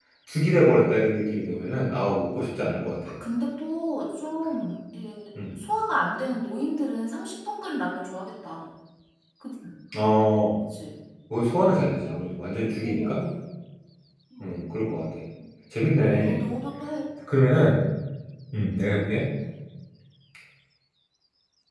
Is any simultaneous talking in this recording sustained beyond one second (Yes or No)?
No